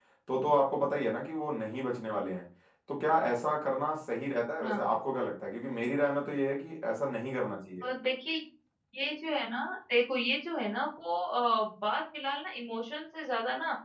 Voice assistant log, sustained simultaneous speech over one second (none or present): none